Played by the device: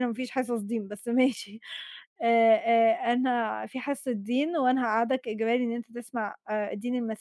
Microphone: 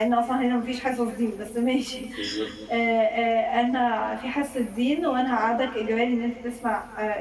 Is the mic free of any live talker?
No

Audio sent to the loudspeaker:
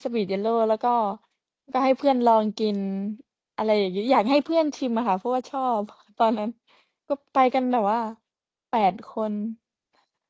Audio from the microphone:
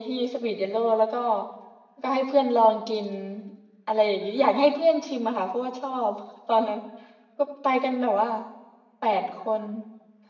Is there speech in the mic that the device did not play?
No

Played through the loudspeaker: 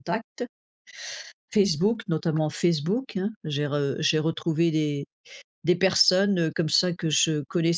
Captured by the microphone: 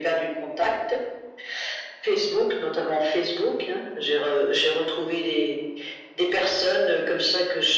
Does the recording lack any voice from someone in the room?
Yes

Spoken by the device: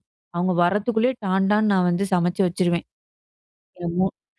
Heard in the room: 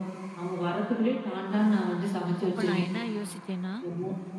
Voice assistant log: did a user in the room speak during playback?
Yes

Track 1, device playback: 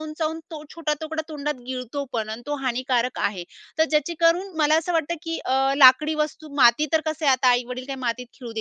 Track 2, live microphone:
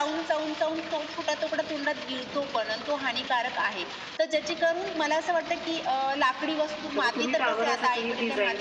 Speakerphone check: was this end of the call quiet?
No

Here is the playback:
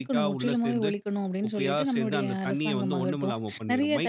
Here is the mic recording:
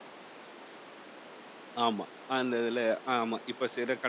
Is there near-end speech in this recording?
Yes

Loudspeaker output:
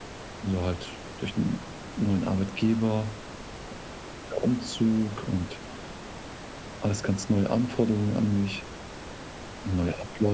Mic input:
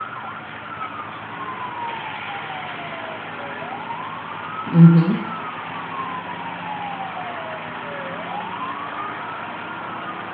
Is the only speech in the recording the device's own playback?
No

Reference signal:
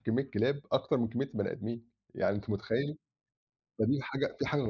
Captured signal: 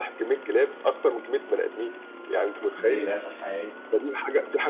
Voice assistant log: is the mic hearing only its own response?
No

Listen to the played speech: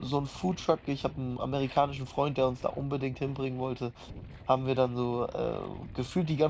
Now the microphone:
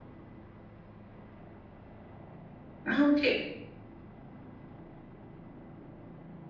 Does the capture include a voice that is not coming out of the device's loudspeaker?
Yes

